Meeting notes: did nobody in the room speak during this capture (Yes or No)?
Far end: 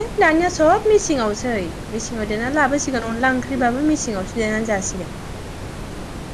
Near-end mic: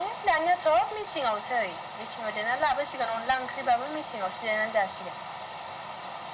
Yes